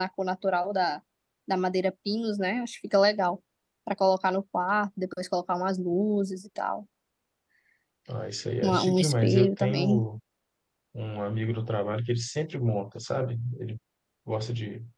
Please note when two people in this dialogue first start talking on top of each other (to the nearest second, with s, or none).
9 s